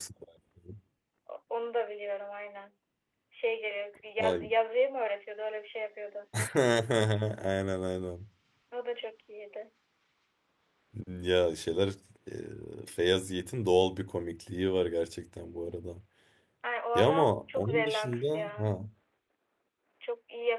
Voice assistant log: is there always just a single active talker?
No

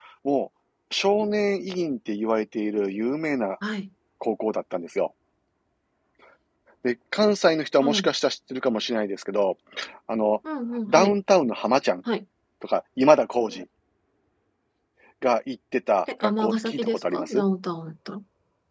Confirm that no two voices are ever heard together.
No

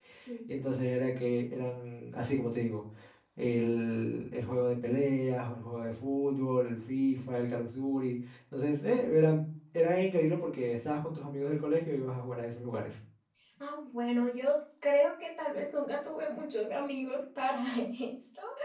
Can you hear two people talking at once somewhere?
No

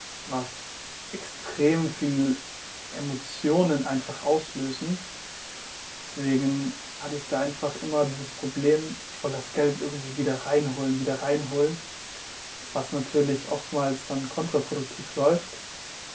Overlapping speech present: No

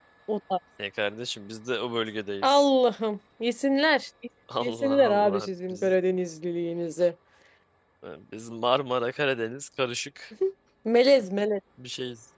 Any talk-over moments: Yes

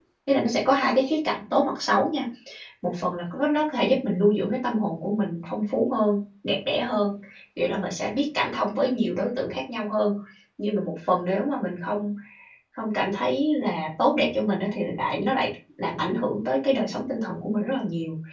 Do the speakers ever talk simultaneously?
No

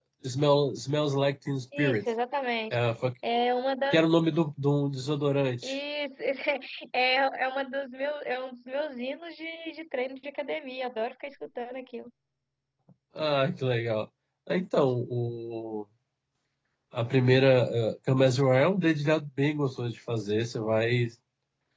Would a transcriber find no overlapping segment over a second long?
Yes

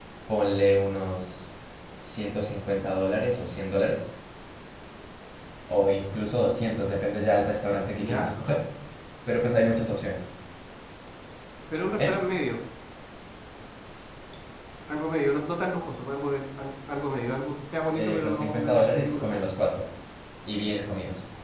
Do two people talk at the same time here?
Yes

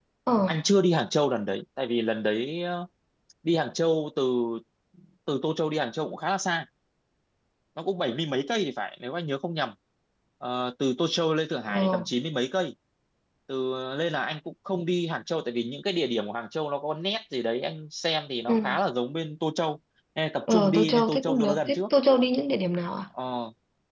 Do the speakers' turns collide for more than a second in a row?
Yes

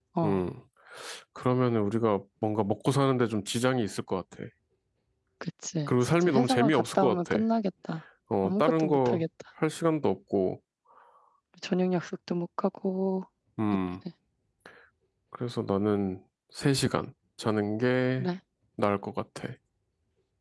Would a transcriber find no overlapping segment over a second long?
No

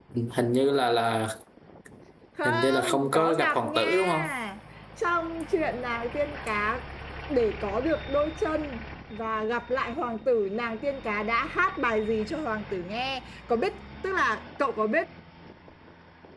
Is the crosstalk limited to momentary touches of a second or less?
No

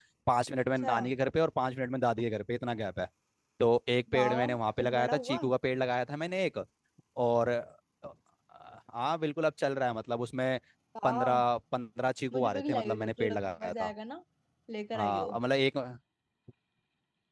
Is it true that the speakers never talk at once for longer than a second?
No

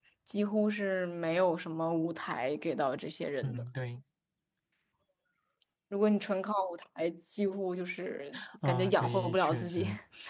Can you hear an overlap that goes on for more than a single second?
Yes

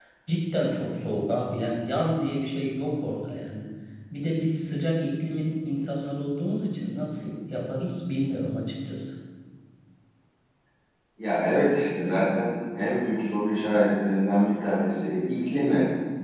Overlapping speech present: No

